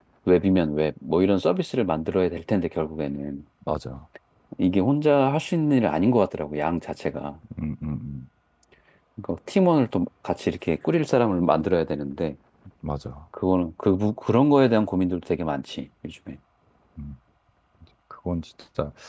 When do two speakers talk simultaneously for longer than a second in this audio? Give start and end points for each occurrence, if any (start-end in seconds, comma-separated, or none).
none